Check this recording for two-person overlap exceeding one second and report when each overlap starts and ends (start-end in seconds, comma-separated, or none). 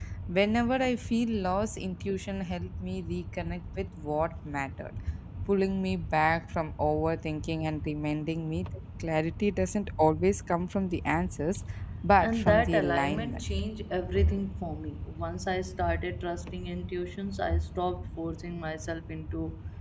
12.2-13.4